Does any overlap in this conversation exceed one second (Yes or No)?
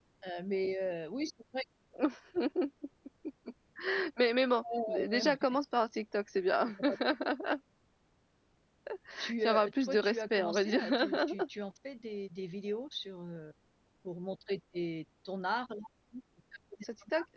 Yes